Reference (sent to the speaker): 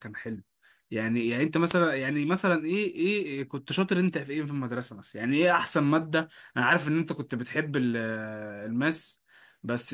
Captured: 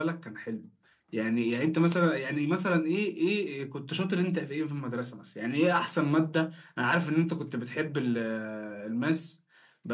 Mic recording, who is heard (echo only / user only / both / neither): echo only